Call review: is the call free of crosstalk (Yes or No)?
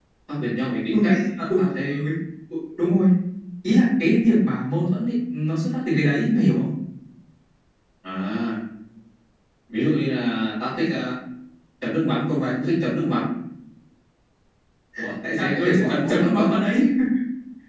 No